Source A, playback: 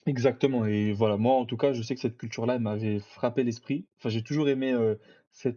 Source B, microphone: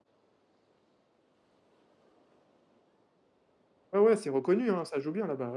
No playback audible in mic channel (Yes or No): Yes